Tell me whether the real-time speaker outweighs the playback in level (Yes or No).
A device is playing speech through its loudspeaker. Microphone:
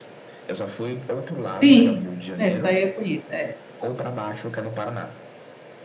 Yes